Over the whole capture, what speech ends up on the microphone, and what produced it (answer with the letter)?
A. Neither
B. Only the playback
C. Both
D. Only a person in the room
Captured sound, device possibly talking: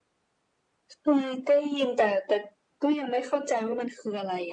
B